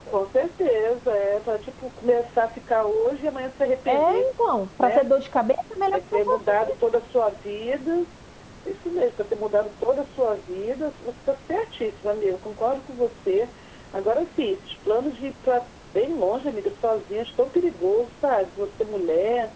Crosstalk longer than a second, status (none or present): none